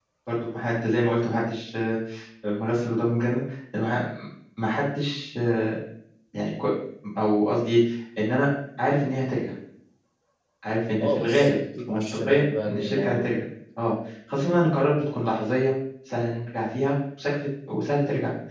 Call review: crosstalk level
present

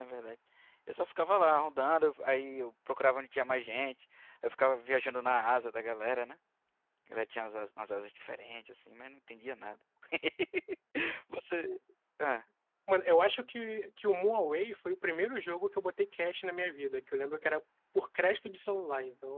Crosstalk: none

